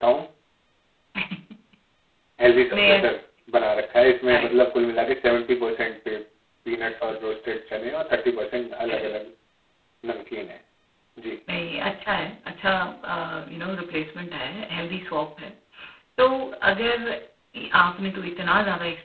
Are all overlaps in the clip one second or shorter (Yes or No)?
Yes